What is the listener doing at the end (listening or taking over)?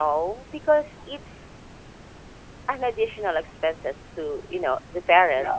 listening